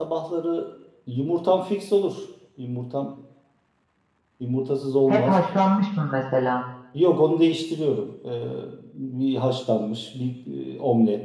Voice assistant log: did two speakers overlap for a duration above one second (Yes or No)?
No